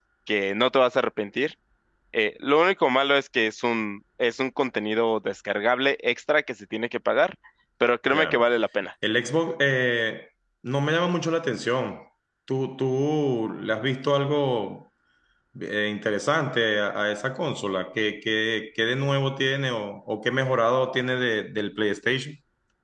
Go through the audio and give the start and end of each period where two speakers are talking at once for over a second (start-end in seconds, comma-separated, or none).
none